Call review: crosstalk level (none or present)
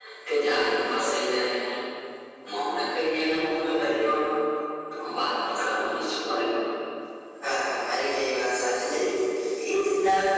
none